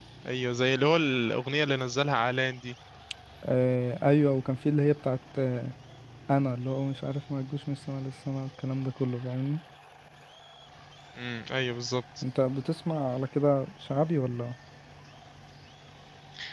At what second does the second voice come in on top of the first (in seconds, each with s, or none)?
none